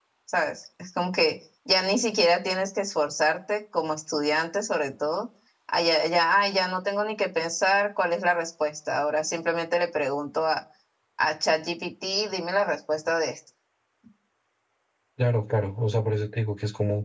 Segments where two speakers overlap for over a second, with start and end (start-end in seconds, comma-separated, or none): none